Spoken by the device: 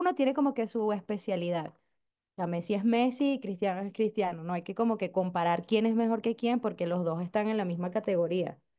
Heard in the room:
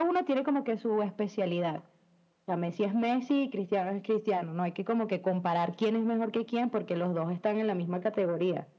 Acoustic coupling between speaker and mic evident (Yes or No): Yes